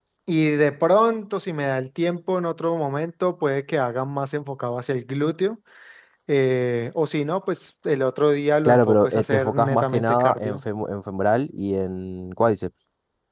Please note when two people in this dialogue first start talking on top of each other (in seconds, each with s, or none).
8.7 s